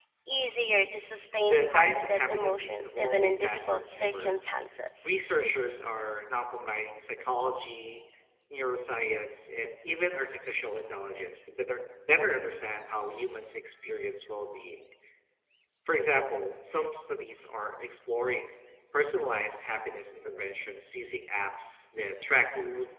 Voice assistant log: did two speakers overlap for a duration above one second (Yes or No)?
Yes